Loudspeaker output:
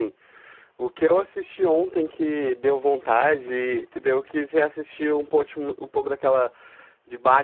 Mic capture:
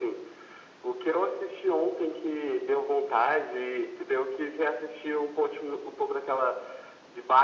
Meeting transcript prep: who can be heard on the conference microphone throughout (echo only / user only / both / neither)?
echo only